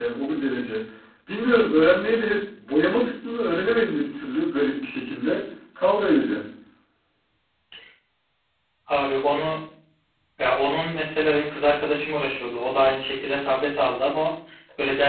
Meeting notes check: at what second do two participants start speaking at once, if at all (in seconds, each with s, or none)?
none